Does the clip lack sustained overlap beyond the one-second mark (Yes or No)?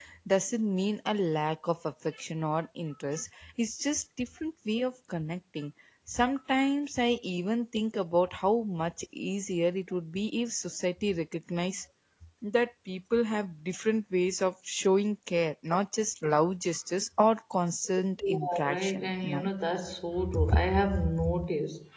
No